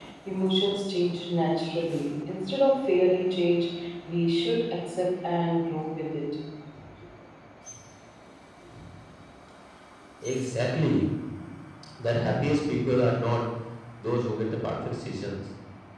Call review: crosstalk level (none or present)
none